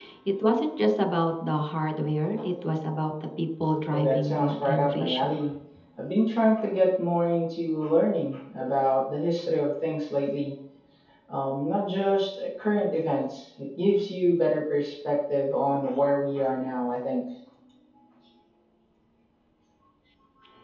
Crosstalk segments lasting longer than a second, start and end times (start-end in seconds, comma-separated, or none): 3.9-5.4